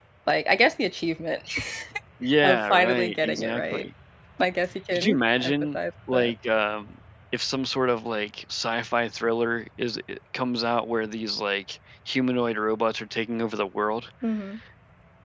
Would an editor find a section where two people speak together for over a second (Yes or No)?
Yes